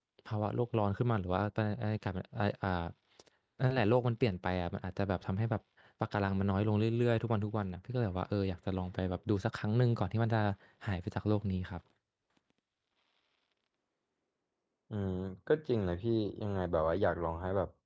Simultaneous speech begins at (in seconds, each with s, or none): none